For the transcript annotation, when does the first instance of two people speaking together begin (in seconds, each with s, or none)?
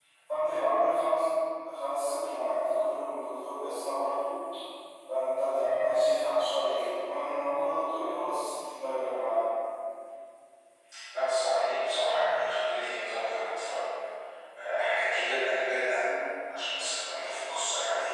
none